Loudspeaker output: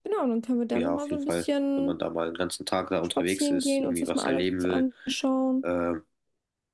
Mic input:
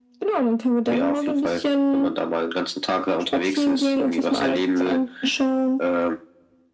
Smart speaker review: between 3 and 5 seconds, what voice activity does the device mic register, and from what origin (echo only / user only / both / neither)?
echo only